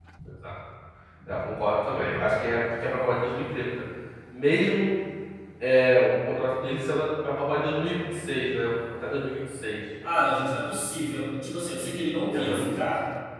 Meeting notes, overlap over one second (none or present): none